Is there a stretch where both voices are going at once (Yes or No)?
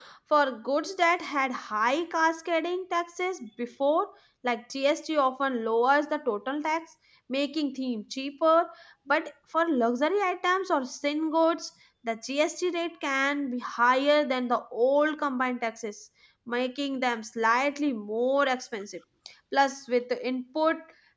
No